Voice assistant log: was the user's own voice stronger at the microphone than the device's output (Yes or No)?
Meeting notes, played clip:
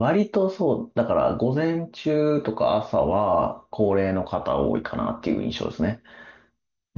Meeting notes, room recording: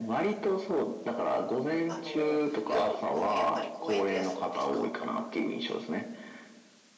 No